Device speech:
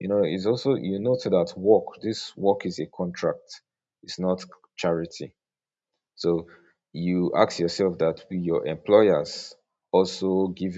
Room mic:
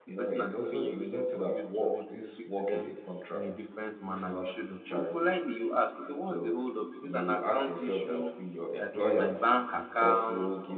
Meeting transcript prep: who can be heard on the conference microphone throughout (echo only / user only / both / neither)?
both